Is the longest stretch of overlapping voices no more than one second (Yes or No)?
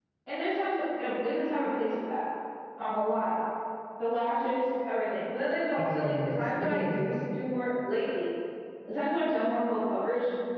No